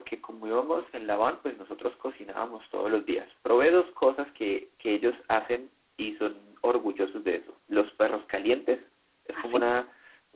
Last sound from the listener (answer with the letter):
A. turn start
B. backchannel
B